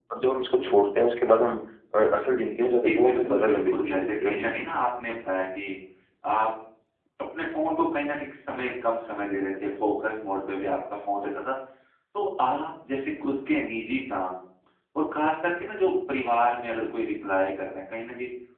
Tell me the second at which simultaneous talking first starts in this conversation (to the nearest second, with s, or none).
3 s